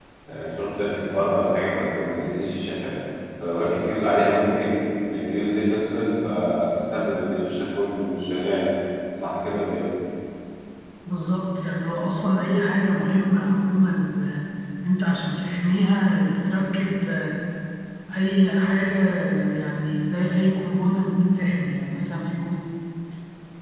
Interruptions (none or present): none